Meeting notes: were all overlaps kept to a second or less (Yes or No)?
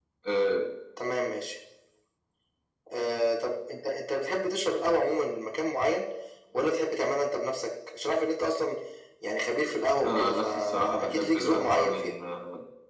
No